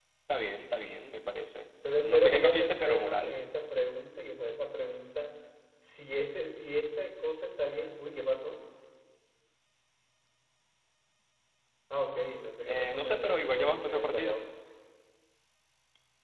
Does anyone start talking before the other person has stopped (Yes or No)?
Yes